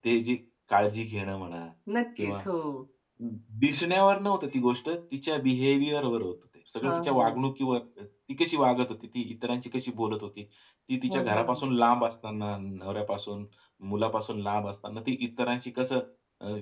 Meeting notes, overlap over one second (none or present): none